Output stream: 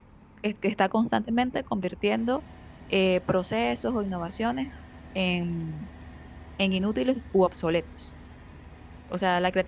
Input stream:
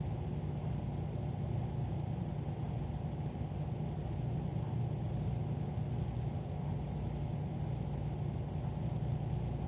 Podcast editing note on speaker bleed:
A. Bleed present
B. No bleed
B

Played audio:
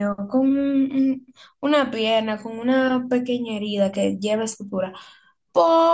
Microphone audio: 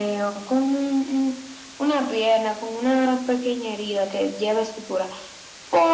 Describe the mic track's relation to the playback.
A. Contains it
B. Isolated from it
A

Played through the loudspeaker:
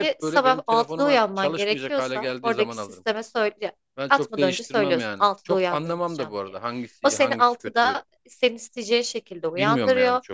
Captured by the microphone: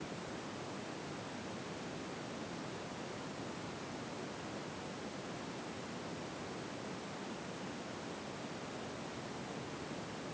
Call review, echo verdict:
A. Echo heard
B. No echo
B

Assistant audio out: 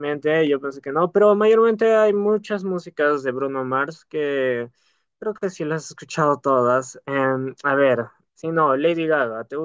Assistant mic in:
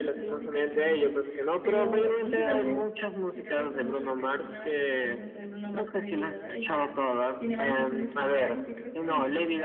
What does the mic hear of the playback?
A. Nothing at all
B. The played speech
B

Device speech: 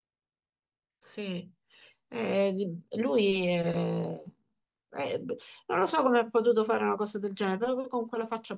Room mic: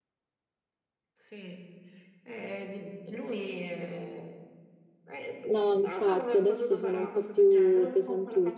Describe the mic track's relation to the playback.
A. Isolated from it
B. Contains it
B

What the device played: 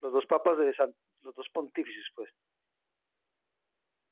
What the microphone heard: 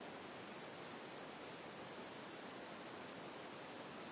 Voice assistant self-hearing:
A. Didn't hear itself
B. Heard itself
A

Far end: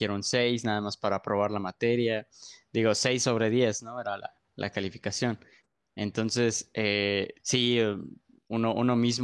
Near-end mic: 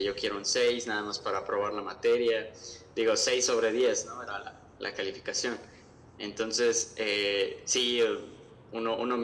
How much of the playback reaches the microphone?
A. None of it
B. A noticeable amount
B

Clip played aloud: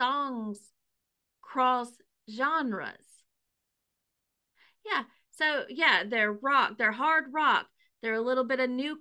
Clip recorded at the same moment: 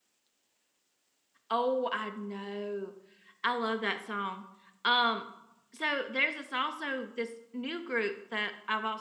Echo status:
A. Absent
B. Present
A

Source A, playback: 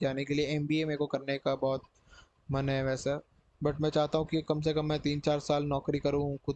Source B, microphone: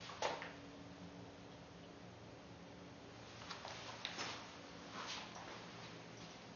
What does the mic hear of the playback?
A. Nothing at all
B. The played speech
A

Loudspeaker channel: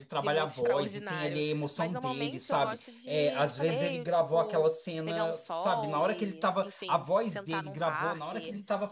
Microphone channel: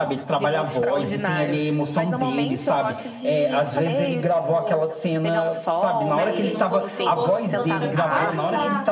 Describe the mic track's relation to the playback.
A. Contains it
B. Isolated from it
A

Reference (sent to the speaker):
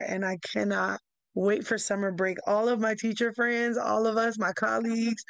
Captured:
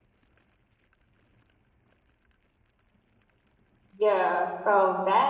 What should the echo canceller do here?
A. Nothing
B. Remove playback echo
A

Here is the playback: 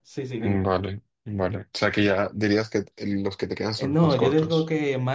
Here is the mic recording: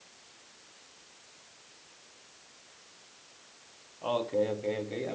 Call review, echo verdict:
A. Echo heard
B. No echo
B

